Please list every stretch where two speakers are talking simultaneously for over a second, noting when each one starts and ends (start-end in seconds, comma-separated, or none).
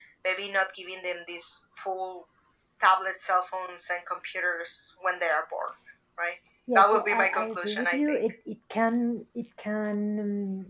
6.8-8.2